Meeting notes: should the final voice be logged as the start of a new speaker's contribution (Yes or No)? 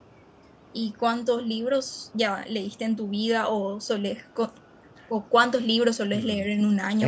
Yes